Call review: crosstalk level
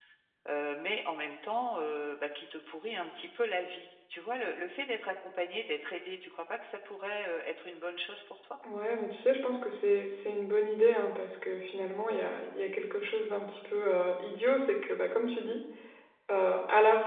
none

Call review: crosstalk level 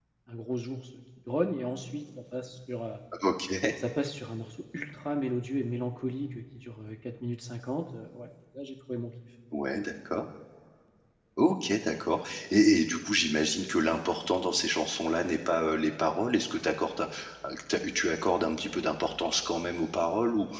none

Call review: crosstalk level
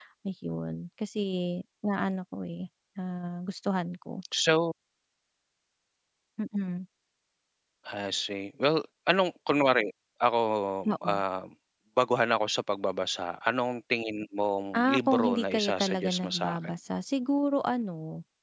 present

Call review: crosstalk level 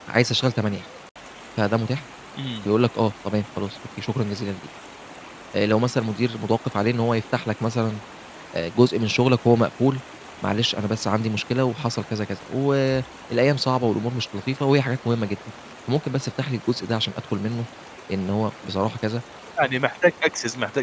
none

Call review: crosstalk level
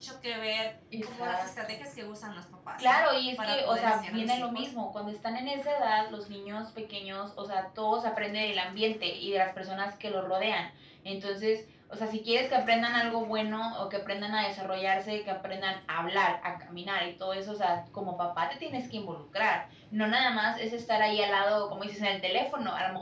present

